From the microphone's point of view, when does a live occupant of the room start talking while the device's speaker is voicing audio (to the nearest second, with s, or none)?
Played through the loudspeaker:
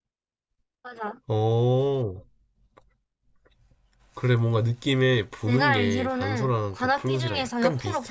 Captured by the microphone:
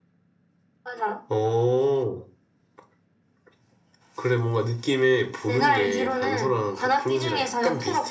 none